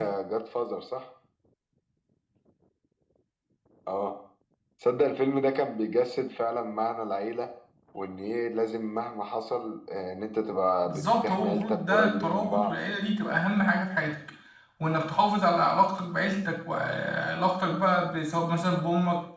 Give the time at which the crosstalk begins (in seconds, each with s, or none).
10.8 s